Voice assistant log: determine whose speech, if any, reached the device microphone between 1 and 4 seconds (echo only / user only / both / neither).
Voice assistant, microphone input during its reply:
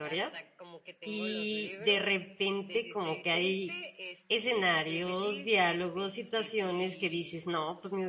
both